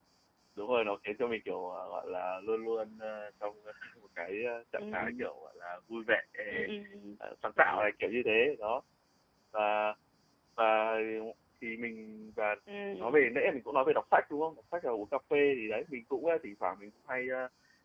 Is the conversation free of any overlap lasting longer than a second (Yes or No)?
Yes